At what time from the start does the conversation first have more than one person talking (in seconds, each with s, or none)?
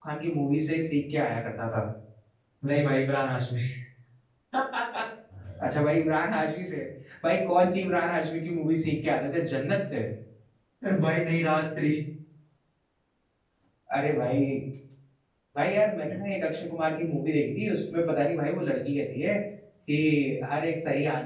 none